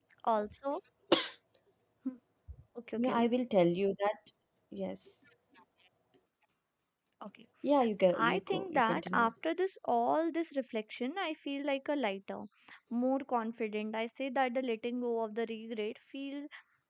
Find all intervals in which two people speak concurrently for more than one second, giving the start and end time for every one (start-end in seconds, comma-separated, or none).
8.1-9.3